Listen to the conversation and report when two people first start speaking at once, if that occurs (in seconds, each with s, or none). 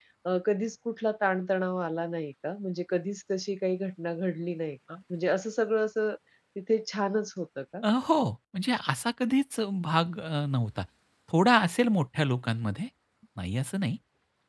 none